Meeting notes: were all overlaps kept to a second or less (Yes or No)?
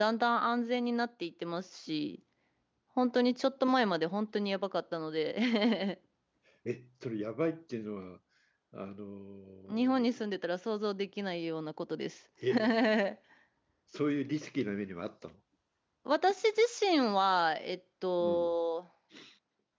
Yes